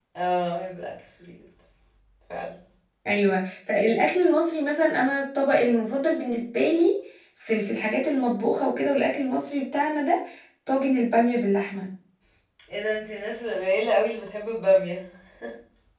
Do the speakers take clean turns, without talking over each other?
Yes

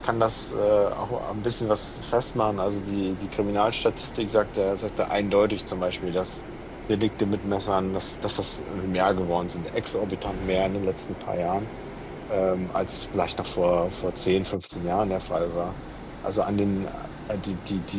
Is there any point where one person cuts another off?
No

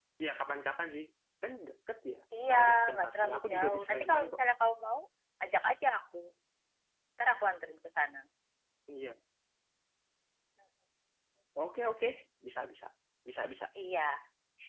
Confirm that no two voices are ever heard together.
No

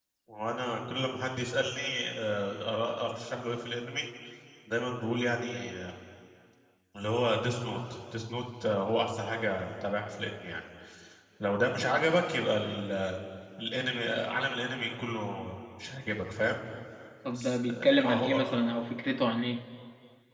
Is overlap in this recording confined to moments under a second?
No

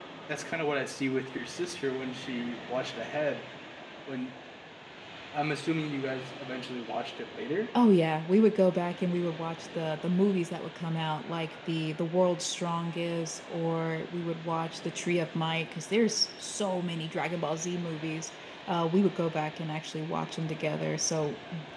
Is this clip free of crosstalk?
Yes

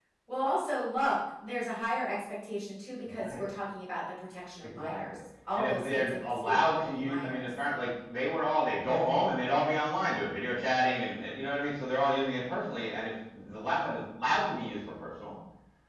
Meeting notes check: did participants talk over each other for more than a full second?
Yes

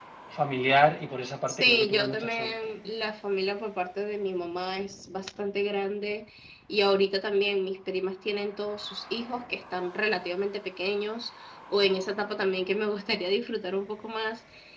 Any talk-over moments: Yes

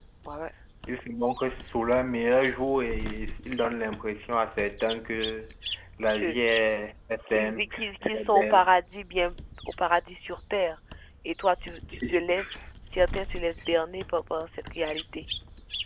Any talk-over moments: Yes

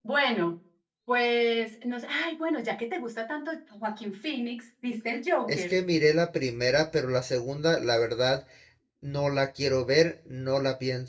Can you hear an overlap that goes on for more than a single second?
No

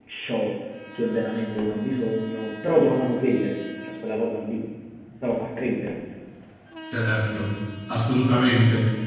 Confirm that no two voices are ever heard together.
Yes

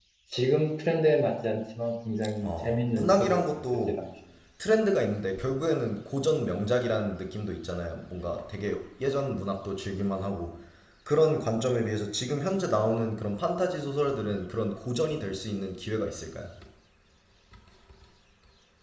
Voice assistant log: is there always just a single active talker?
No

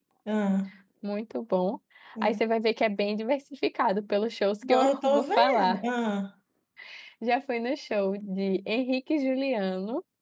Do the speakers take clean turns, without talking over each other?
No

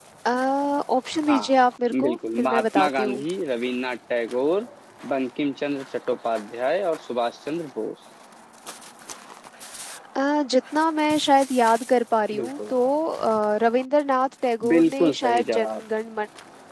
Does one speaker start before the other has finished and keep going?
Yes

